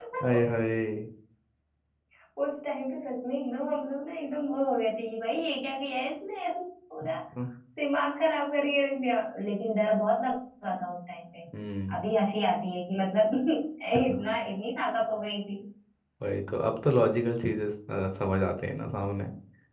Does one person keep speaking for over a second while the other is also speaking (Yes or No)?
No